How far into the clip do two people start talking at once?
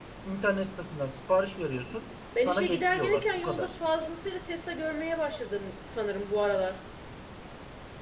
2.4 s

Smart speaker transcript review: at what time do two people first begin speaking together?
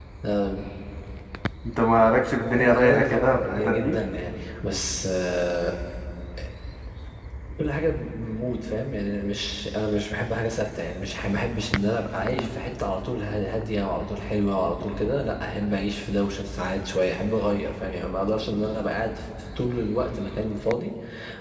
2.6 s

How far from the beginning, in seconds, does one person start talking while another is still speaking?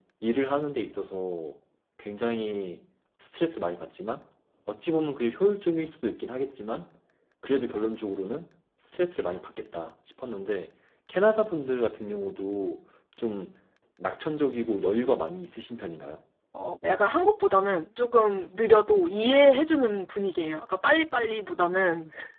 none

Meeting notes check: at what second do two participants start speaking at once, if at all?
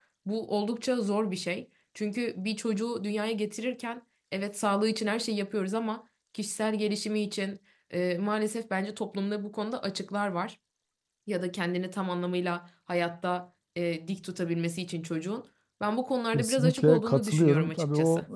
16.3 s

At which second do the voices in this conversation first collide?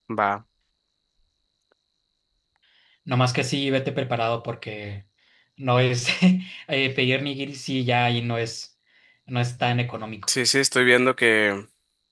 none

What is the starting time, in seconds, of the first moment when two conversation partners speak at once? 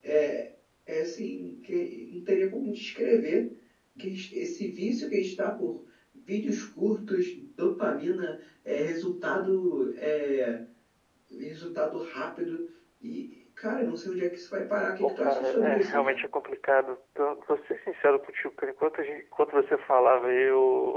14.9 s

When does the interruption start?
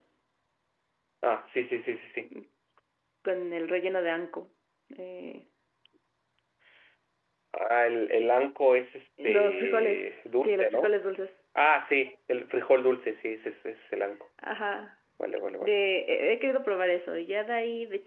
9.2 s

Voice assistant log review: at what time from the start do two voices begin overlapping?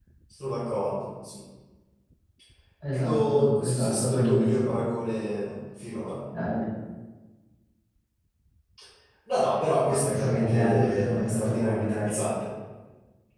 2.9 s

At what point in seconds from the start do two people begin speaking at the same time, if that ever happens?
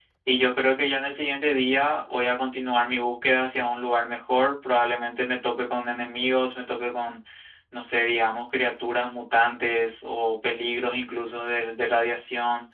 none

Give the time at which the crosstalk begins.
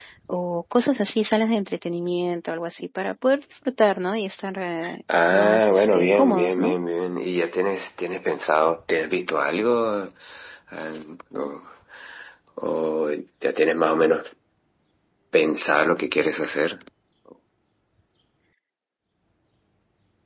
5.3 s

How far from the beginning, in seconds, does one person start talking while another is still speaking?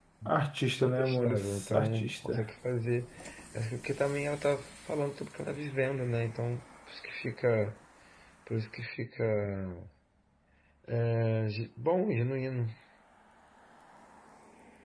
0.8 s

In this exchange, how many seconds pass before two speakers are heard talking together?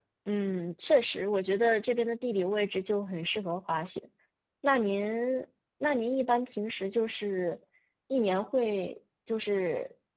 none

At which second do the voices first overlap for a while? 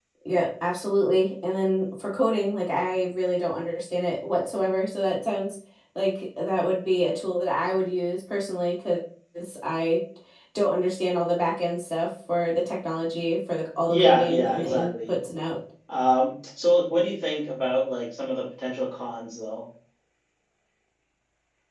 13.9 s

